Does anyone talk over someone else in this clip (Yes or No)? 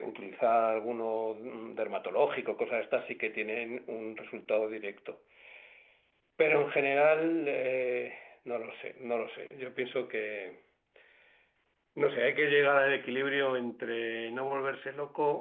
No